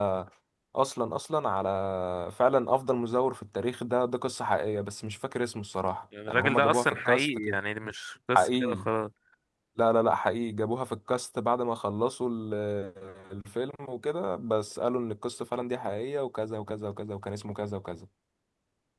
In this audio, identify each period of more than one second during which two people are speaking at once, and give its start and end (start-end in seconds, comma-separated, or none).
6.3-7.6